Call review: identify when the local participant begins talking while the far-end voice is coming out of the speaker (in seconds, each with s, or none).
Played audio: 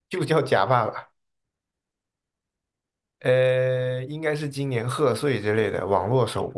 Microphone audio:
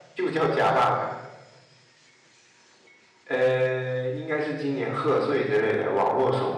none